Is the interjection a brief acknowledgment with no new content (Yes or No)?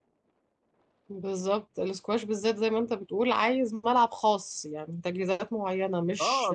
No